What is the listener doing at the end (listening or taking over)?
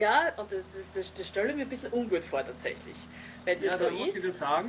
taking over